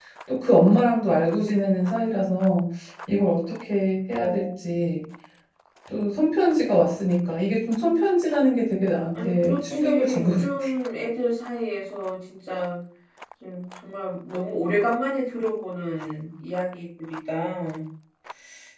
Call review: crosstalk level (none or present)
present